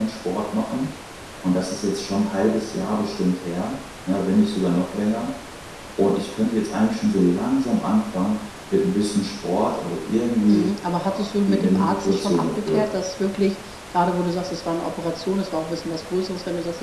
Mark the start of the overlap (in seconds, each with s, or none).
10.5 s